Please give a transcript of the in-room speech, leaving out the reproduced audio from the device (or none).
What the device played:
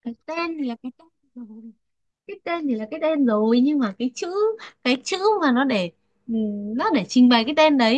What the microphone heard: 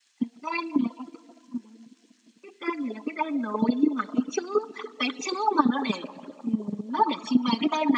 none